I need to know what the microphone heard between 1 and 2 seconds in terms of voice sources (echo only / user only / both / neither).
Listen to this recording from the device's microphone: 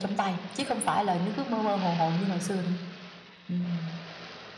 echo only